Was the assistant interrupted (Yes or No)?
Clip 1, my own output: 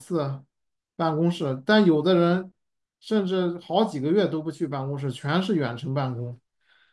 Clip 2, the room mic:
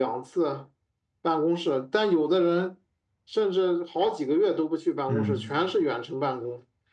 Yes